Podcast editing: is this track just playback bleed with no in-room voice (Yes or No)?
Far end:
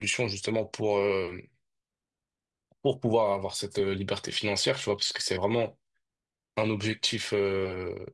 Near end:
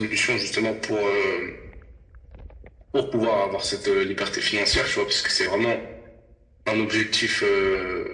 Yes